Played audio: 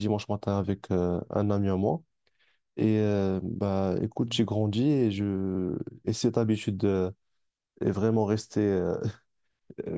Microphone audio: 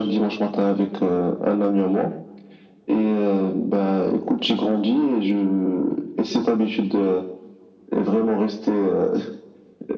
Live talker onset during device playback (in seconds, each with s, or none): none